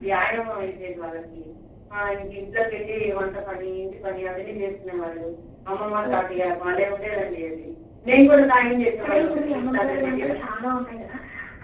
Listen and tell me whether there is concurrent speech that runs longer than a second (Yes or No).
Yes